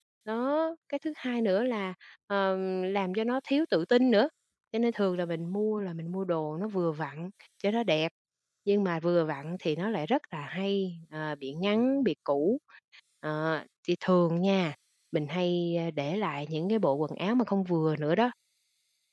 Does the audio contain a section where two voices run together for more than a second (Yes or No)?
No